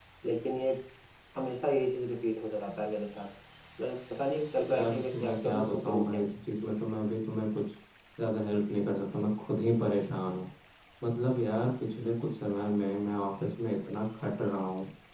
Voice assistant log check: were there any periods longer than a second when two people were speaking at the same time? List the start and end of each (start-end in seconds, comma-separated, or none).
4.7-6.2